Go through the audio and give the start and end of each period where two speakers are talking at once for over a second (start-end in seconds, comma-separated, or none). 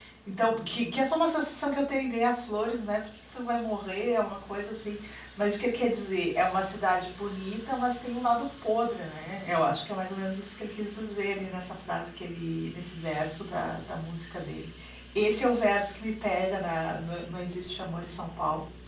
none